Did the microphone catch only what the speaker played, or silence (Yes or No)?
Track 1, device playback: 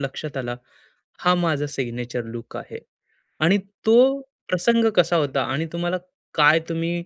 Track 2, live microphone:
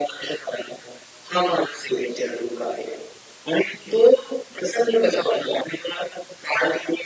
Yes